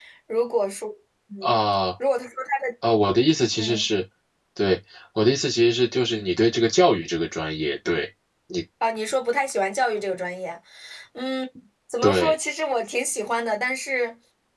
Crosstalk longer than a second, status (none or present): none